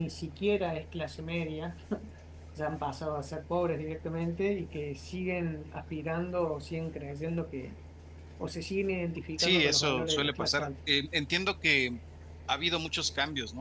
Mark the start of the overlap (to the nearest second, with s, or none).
9 s